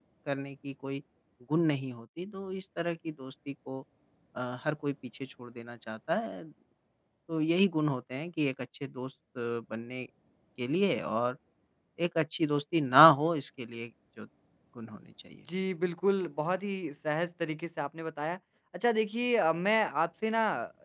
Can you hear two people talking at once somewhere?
No

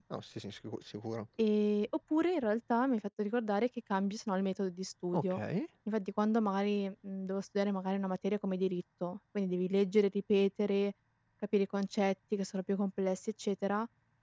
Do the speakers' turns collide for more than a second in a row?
No

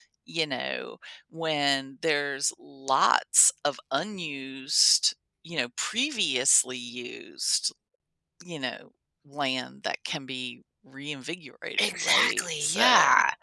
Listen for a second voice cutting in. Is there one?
Yes, from 11.8 s

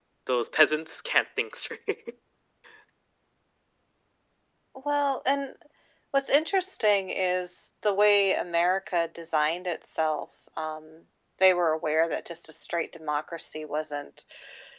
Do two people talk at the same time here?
No

